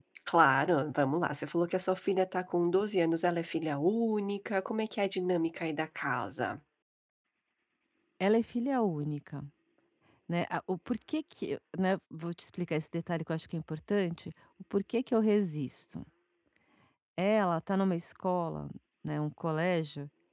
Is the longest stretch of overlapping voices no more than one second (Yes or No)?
Yes